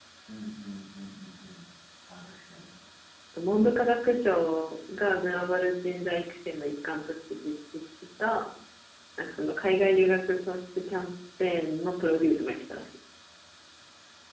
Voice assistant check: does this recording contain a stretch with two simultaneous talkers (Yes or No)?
No